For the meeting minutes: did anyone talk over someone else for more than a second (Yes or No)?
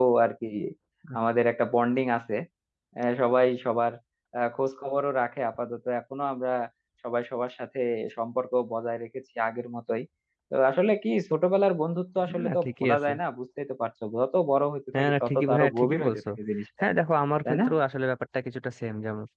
Yes